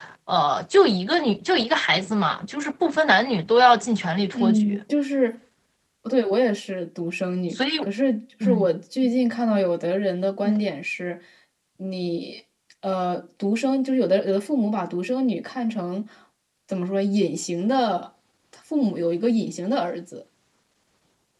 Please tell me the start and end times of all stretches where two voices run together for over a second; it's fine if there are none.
none

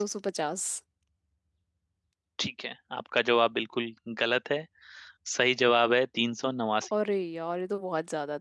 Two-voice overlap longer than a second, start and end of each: none

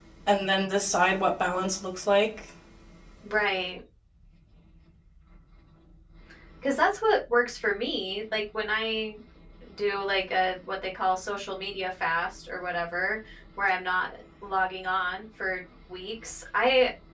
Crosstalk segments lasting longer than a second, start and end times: none

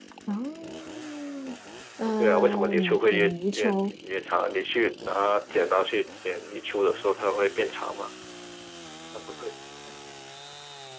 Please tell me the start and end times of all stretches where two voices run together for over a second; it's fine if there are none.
2.0-3.9

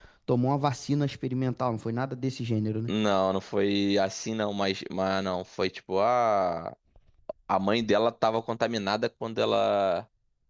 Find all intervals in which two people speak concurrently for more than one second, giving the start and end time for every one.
none

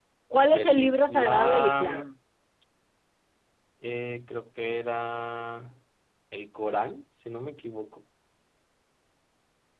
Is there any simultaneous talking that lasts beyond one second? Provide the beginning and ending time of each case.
0.5-2.1

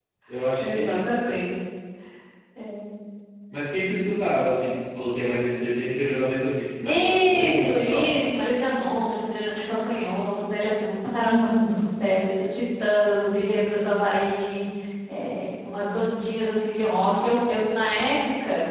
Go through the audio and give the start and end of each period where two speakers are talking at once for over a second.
6.8-8.2

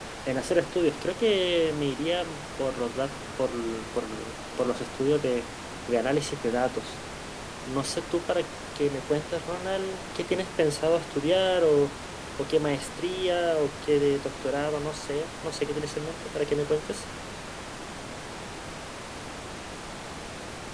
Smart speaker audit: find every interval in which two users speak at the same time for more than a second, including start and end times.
none

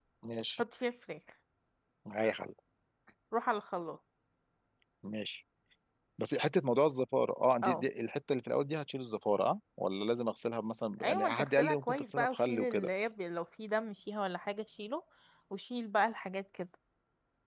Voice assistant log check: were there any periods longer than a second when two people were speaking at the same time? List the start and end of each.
11.0-12.9

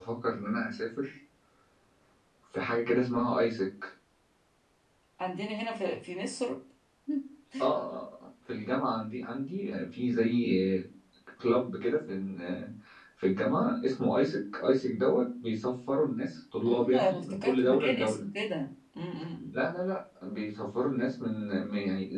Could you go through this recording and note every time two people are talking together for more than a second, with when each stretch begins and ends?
16.6-18.2

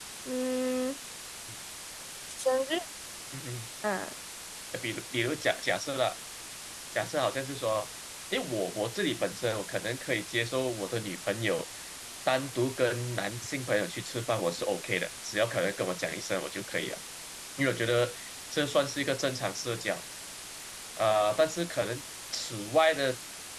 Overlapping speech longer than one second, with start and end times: none

